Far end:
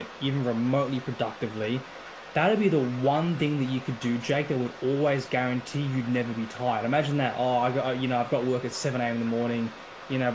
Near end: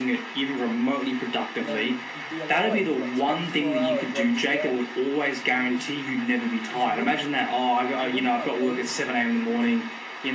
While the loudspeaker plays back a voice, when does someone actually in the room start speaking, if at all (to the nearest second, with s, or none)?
2 s